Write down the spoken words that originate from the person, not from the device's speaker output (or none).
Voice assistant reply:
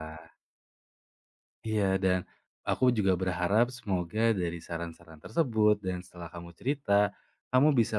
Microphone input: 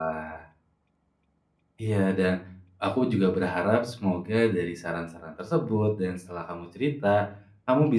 none